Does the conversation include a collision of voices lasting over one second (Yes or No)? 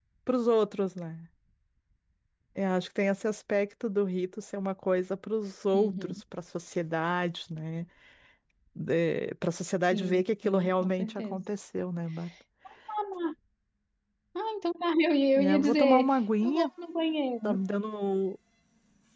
Yes